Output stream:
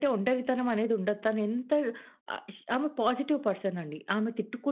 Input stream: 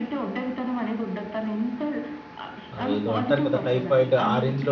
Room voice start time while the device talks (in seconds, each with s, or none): 2.8 s